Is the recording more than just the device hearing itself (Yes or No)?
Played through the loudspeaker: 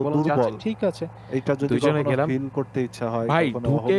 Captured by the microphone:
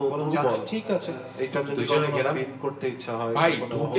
Yes